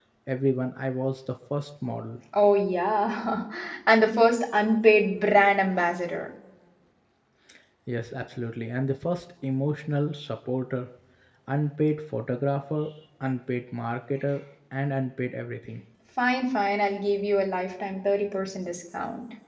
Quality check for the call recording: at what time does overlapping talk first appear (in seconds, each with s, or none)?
none